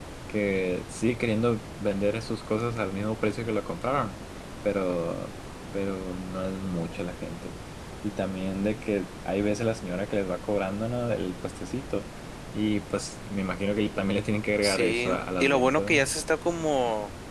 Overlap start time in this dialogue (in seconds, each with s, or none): 14.6 s